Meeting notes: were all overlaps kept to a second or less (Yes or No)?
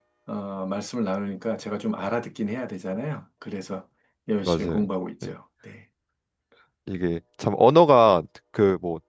Yes